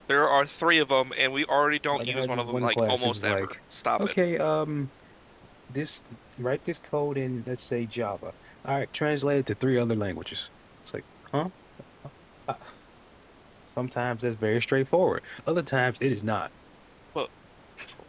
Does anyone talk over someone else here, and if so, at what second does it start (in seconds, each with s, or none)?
1.9 s